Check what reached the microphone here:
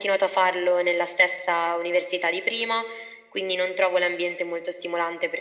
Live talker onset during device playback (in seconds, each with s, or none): none